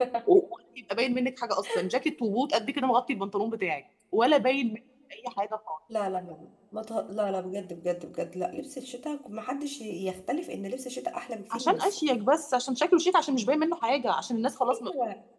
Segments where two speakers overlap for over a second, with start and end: none

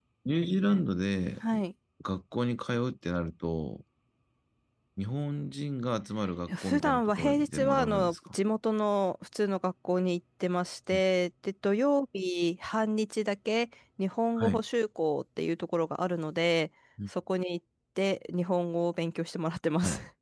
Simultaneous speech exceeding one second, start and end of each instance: 6.5-8.2

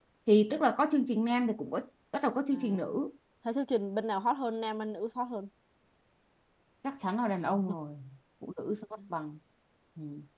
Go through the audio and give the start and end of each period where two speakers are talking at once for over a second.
none

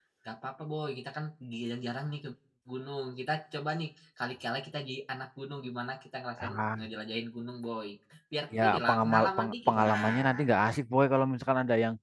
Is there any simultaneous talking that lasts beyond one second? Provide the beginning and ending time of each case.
8.6-10.5

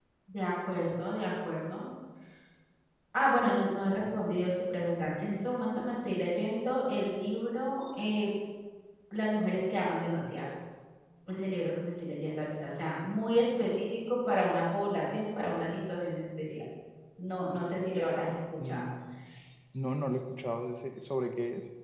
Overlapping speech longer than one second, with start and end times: none

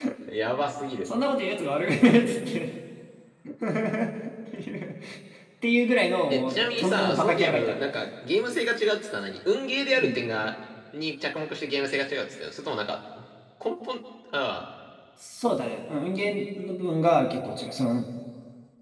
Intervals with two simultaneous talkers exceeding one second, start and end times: 6.3-7.7

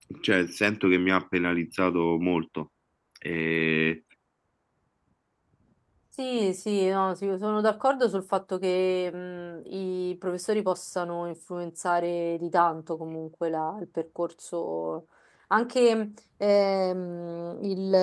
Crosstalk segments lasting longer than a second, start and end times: none

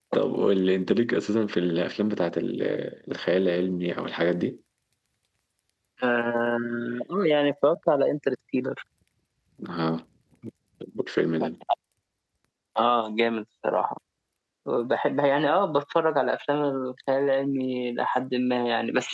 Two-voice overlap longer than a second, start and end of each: none

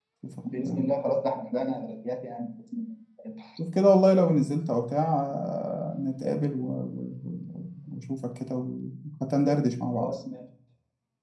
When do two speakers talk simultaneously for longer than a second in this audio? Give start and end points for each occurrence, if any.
none

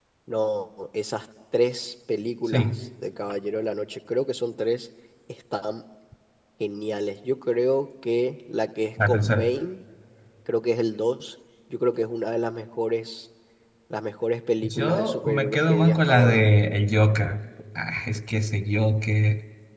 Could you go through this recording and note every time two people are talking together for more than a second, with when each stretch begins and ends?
14.6-16.4

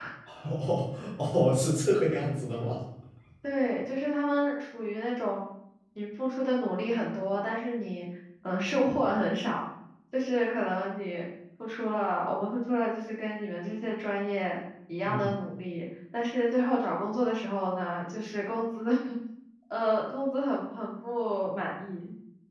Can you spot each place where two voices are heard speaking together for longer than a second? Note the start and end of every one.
none

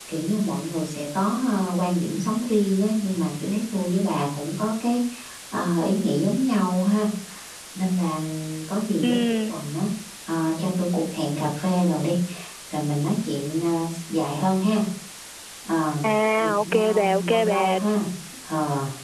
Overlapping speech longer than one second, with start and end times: 16.4-17.8

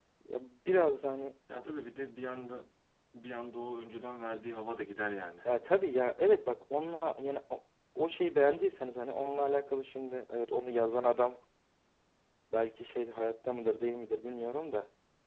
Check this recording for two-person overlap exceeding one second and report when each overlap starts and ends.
none

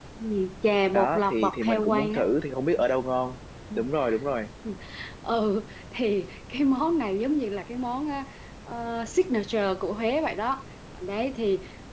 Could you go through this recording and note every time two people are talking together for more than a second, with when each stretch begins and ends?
0.9-2.2

